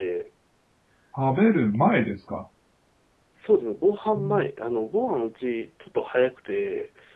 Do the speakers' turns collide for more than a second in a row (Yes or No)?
No